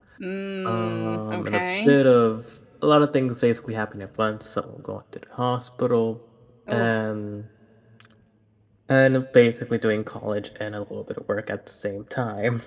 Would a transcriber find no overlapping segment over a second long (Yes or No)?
No